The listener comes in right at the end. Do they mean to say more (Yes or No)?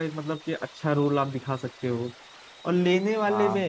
No